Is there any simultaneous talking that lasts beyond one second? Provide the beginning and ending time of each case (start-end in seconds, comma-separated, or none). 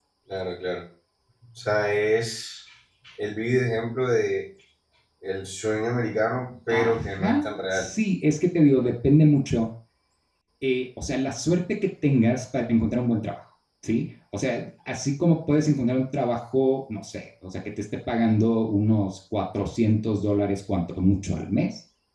6.7-7.9